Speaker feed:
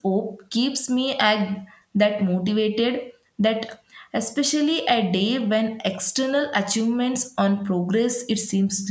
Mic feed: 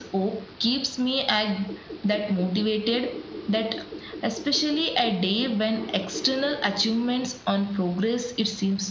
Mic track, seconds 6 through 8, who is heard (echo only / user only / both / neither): echo only